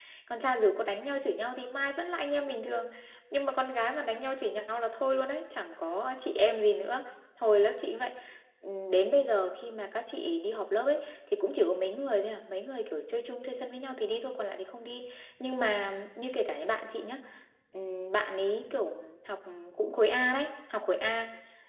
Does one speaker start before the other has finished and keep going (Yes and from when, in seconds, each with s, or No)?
No